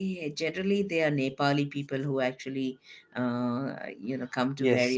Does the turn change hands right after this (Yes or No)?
Yes